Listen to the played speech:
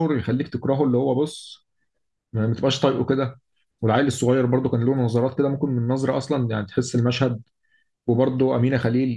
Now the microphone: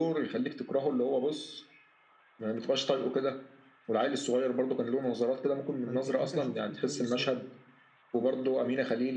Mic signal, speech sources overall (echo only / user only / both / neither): both